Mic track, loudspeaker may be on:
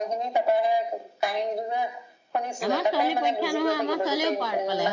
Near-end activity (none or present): present